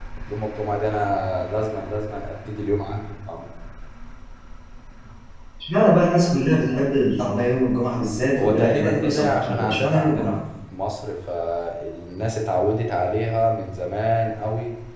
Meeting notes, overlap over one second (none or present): present